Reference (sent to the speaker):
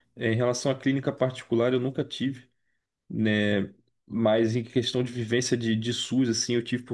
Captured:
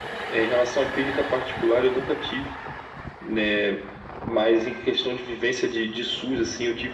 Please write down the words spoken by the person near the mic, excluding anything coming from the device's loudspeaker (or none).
none